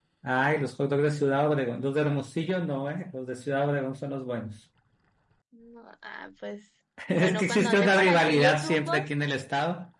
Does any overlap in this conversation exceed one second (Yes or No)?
Yes